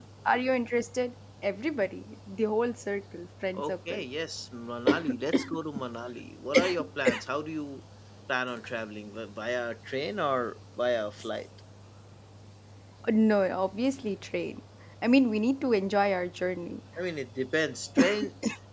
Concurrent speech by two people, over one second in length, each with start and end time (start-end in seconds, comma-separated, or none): none